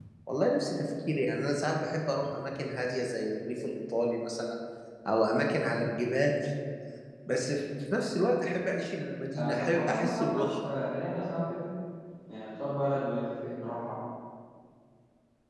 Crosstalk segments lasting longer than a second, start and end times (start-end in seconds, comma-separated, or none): 9.3-10.7